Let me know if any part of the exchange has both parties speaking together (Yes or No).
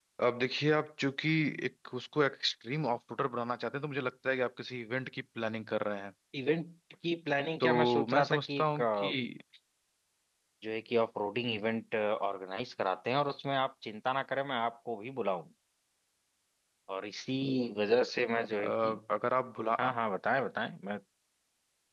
Yes